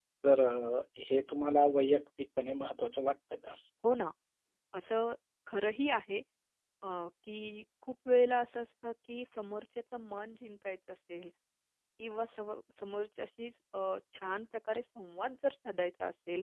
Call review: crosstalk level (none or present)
none